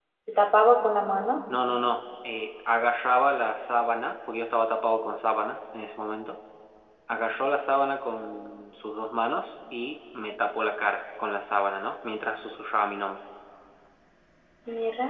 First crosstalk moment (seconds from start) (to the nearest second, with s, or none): none